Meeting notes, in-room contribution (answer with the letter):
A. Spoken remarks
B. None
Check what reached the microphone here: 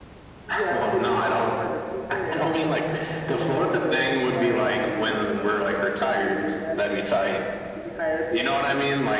B